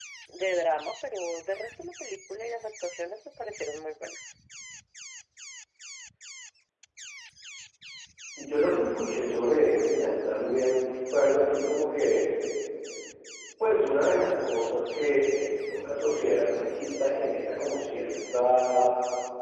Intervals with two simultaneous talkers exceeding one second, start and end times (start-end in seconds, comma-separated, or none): none